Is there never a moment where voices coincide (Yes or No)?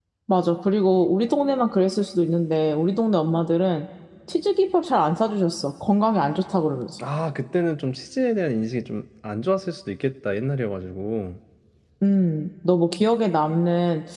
Yes